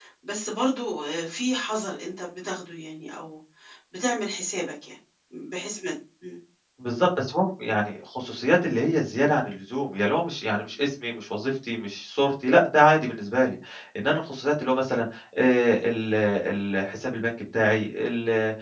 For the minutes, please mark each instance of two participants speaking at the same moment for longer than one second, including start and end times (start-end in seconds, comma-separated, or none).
none